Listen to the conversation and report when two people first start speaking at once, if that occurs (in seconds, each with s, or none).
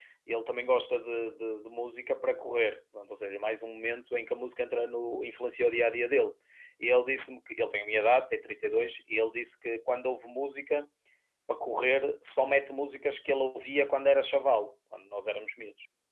none